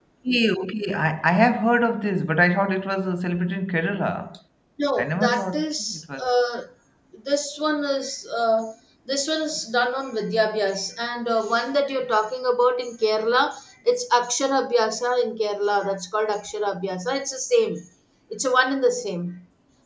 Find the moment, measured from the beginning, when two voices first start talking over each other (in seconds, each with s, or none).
5.0 s